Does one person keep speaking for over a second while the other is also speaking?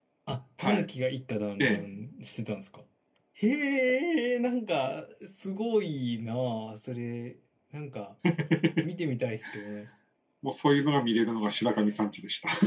No

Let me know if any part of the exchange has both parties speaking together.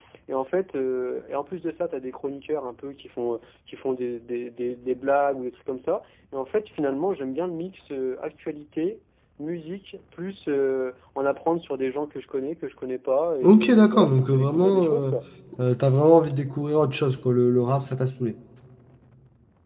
Yes, from 13.4 s

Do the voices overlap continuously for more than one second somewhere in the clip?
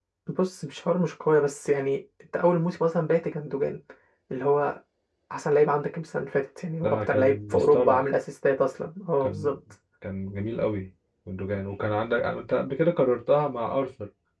Yes, from 6.8 s

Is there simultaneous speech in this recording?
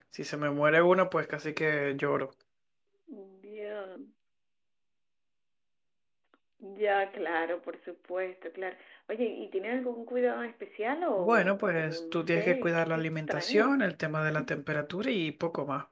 Yes, from 11.2 s

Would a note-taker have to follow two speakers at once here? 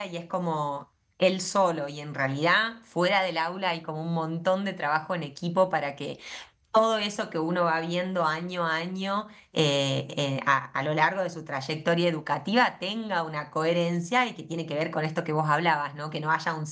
No

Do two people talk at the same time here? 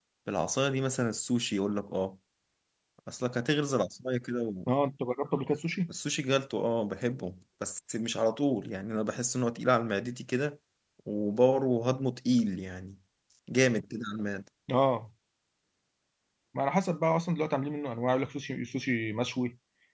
No

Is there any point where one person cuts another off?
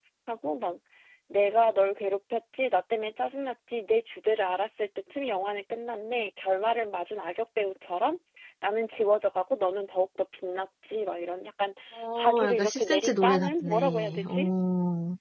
Yes, from 12.1 s

